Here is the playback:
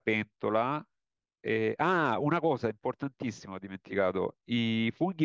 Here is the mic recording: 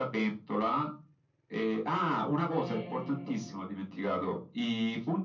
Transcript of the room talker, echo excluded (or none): ok.